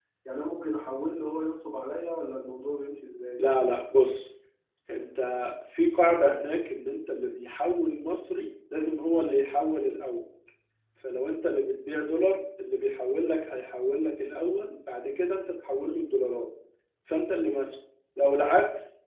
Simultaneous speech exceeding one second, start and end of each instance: none

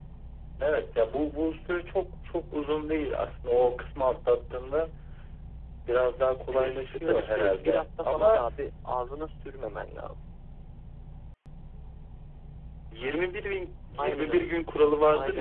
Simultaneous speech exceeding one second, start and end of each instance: 6.5-8.4

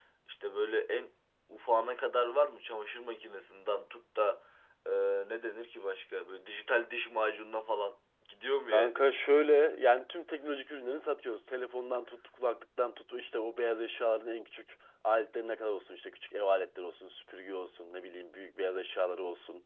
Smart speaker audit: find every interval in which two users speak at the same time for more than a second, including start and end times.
none

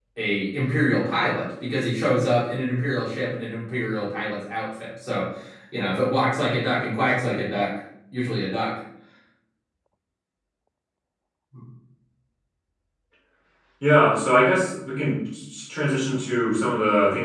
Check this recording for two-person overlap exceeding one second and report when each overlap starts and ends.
none

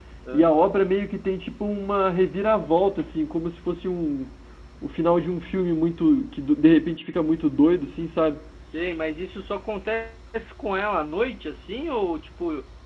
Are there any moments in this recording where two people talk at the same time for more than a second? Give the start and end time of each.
none

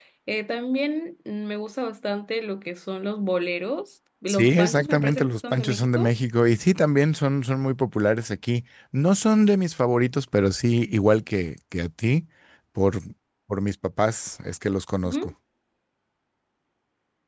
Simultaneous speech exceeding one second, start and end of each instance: 4.3-6.1

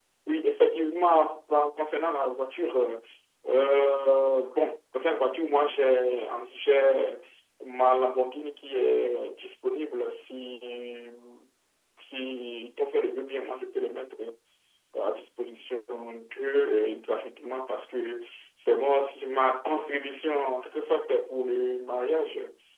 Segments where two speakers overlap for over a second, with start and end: none

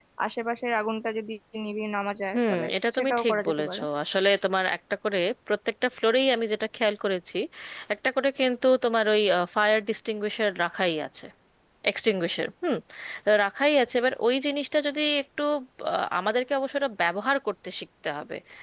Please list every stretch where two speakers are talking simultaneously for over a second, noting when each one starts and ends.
2.4-3.8

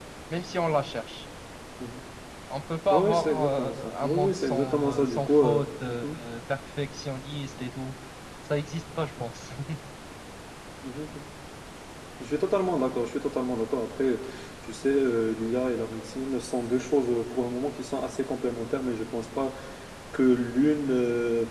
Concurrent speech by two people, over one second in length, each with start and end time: 2.9-6.2

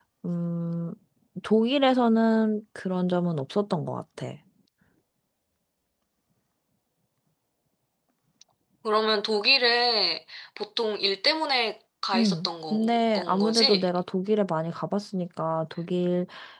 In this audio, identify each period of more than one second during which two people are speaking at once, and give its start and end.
12.2-13.9

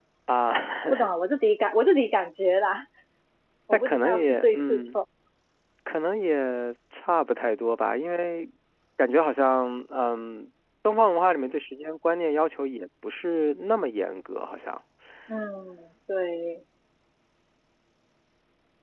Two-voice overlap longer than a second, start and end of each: 3.7-5.0

